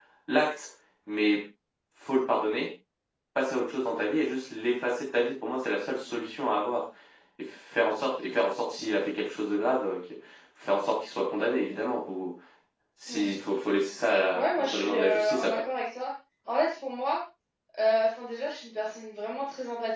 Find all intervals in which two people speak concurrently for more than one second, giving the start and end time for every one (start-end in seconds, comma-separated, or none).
14.3-15.6